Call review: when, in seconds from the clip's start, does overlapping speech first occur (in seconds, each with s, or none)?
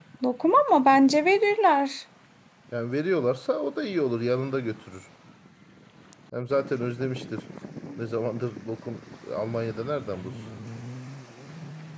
none